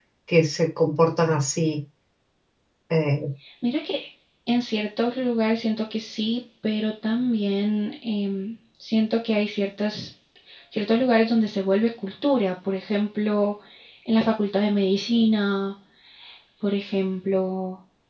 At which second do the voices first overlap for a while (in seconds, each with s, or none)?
none